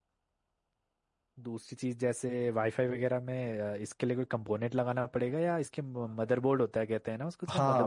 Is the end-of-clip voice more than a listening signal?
Yes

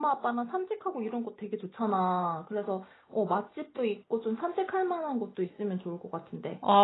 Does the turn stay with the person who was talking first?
No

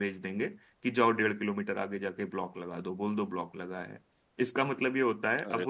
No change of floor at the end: Yes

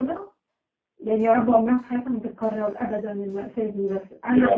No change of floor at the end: Yes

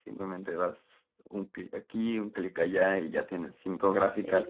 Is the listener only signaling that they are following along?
Yes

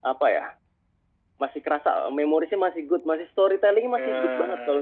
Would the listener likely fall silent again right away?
Yes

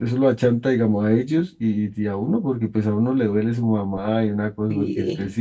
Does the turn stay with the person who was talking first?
Yes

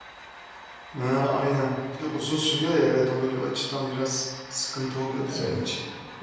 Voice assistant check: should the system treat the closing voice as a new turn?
Yes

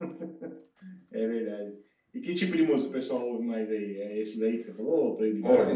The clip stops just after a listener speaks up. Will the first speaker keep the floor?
No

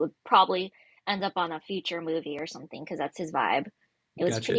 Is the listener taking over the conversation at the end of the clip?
Yes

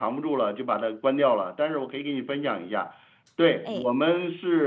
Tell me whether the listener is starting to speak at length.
No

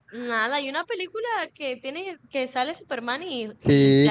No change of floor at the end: No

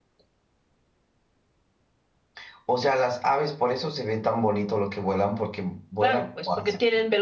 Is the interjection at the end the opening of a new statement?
Yes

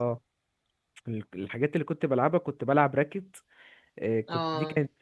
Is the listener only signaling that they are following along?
Yes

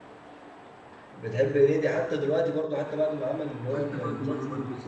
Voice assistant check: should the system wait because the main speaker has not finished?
No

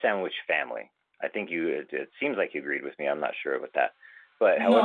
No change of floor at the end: No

